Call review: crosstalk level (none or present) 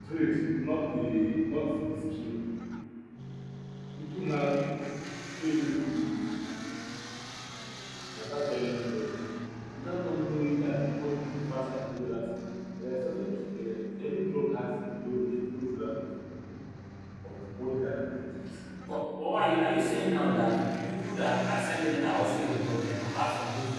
none